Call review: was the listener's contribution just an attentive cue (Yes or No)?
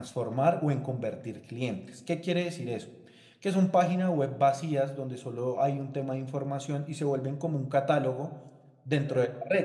Yes